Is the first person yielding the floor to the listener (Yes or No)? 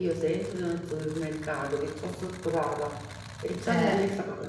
No